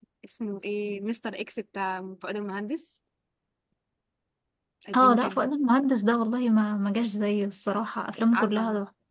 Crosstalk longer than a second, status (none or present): none